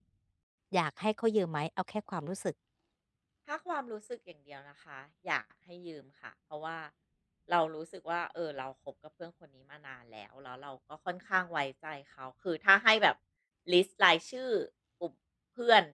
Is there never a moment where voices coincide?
Yes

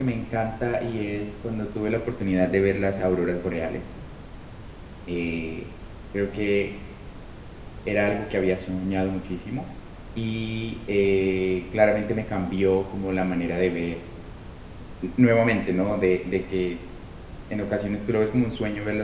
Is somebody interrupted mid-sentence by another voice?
No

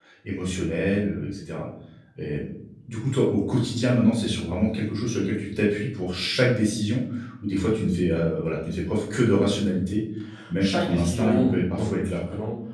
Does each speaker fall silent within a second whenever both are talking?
No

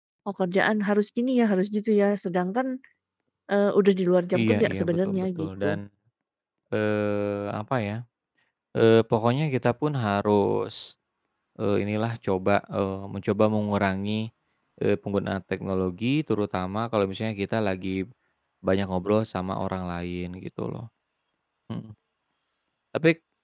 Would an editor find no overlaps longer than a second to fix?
No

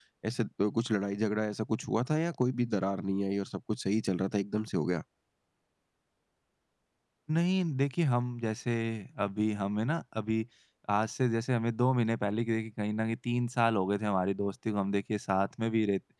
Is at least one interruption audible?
No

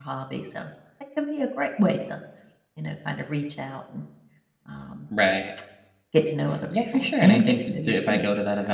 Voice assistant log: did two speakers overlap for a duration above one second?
Yes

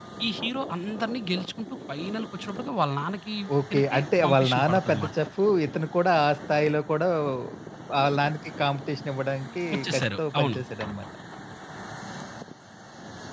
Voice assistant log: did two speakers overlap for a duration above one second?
Yes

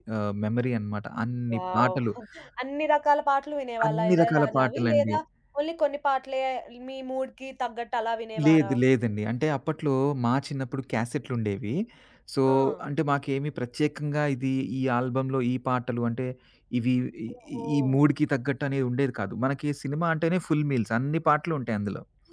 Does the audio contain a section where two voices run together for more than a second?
Yes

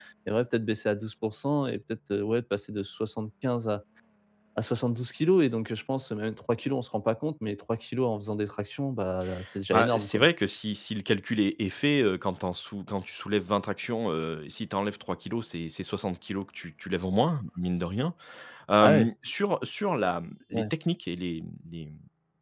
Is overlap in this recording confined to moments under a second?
Yes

